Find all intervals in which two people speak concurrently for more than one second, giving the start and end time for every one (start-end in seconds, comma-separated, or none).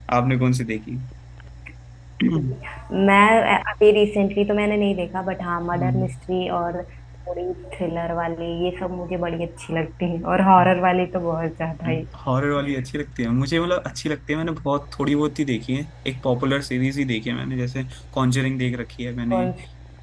none